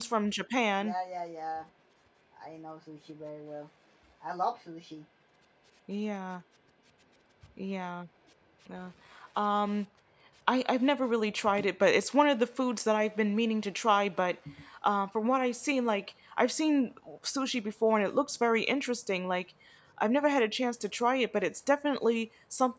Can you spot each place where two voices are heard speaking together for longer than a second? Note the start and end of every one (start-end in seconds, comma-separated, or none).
none